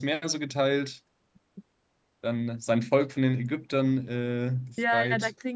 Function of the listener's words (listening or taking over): taking over